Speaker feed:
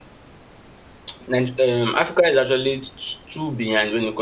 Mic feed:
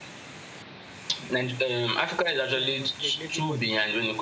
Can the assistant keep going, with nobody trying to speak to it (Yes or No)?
No